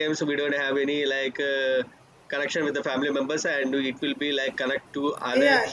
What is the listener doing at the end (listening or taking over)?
taking over